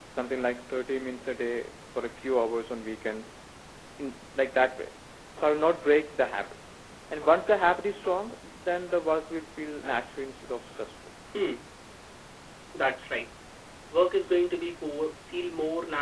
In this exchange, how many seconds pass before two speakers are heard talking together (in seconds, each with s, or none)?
none